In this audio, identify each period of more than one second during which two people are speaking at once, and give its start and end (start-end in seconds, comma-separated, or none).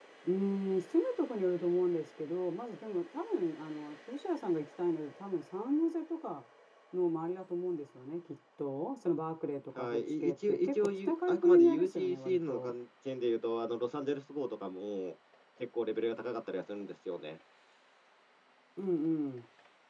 9.8-12.7